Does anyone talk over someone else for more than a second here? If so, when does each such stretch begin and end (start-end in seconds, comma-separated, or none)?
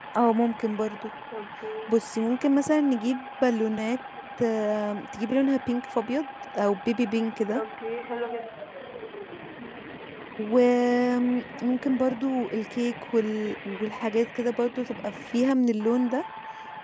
none